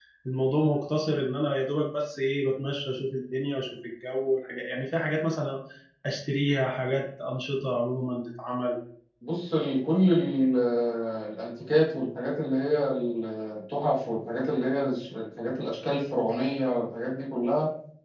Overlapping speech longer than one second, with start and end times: none

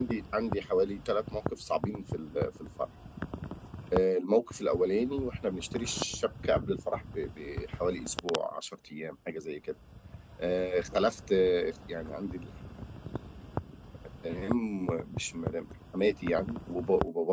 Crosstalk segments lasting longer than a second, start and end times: none

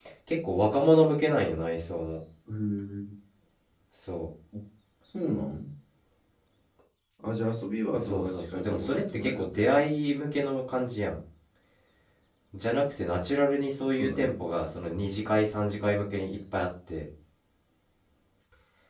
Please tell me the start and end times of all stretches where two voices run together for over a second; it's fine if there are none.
7.9-9.6

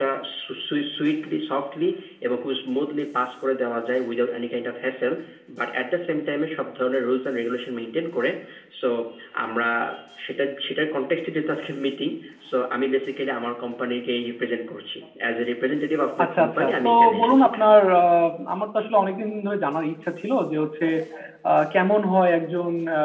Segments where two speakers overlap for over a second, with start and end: 16.2-17.5

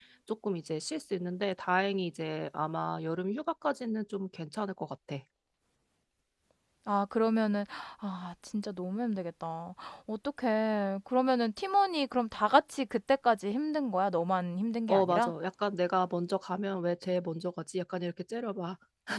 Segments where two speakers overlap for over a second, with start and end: none

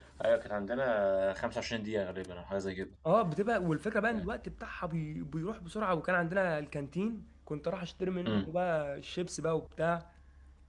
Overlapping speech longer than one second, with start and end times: none

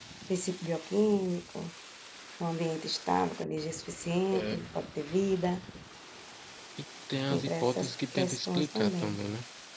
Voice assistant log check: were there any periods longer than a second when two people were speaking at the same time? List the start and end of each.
7.3-9.2

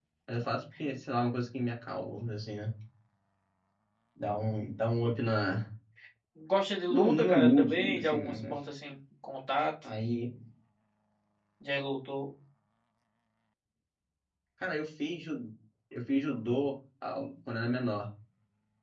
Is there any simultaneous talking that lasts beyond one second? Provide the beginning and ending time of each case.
6.9-8.5

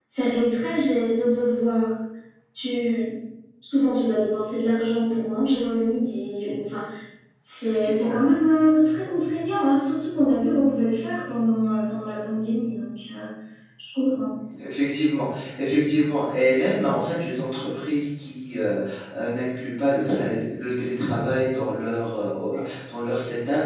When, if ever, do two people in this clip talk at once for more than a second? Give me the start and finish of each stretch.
none

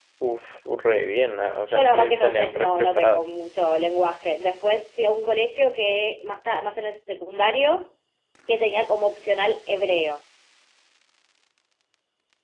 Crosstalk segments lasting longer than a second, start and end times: 1.7-3.3

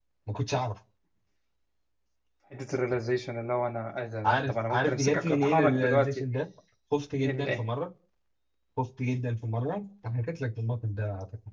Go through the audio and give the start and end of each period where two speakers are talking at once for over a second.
4.2-6.2

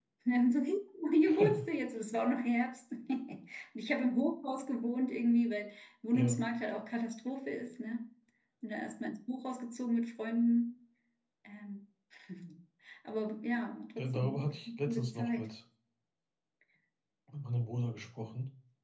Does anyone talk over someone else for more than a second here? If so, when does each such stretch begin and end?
14.0-15.5

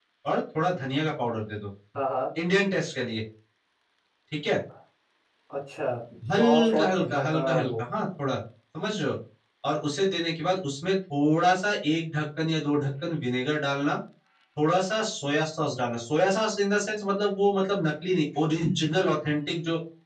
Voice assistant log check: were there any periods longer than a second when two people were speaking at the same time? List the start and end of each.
6.4-7.7

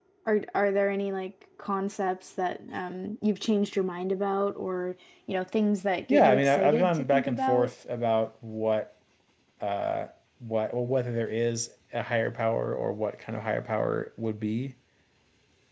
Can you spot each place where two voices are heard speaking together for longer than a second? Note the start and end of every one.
6.1-7.7

